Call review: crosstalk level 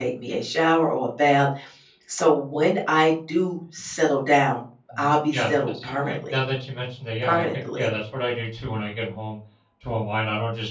present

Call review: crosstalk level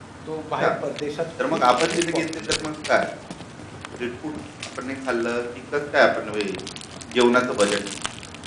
present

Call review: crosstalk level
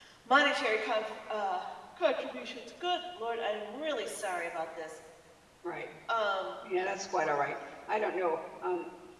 none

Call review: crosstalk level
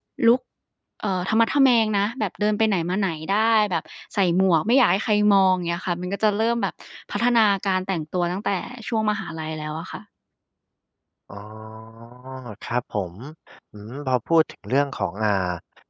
none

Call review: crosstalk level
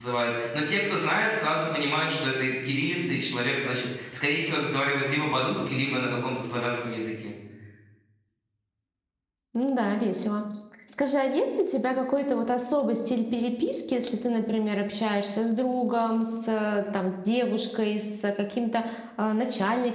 none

